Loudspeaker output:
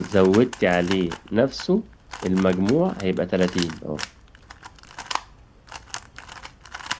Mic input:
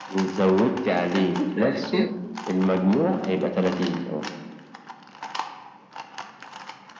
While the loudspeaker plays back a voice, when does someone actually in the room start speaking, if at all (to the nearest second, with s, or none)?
1 s